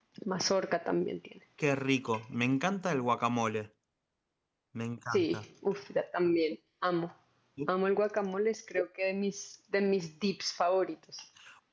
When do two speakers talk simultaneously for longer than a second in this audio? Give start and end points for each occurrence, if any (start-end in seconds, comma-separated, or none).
none